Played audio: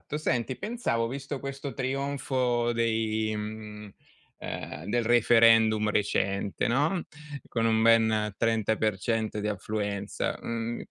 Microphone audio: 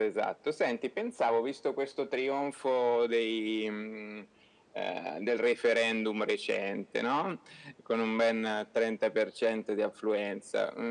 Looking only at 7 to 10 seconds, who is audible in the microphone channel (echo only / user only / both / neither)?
echo only